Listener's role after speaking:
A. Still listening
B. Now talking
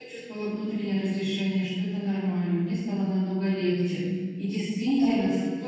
A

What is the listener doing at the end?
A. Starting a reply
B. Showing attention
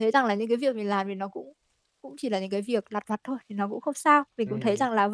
A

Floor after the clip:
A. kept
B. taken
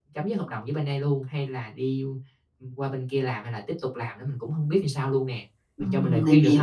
B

